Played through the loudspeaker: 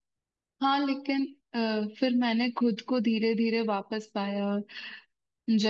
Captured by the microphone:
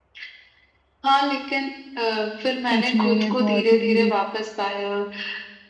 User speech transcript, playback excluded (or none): सच में ये बहुत ही बुरी